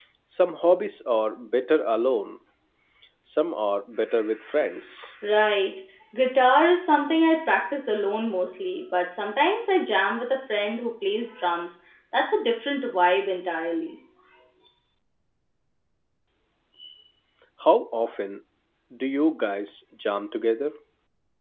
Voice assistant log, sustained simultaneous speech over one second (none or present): none